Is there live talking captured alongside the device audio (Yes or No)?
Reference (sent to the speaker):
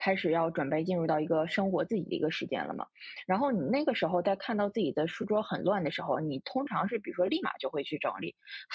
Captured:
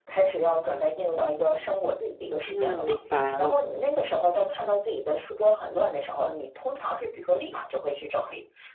Yes